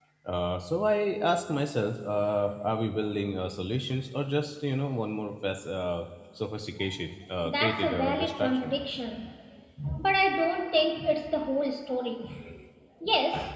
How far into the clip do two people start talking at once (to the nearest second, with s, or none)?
7 s